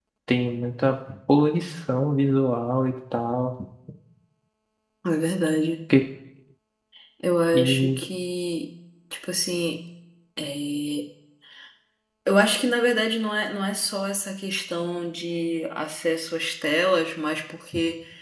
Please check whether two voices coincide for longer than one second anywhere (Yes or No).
No